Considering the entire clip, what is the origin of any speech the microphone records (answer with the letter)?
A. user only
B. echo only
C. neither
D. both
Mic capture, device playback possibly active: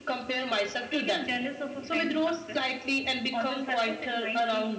B